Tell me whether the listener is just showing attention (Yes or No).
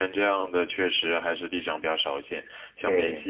Yes